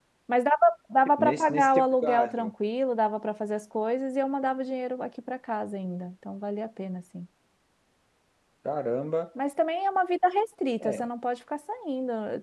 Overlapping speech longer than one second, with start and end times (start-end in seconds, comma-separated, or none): 1.2-2.5